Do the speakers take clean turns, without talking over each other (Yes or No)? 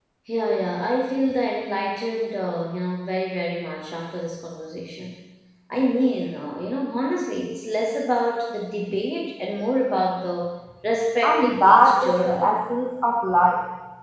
No